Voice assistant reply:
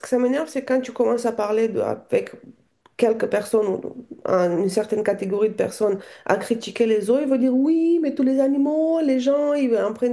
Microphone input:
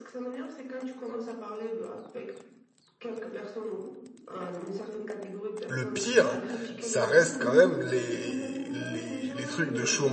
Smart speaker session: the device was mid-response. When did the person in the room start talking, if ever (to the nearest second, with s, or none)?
6 s